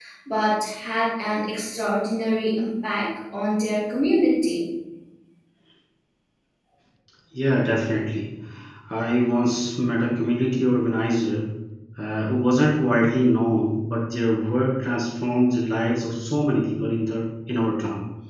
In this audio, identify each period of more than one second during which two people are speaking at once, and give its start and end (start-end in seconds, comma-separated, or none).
none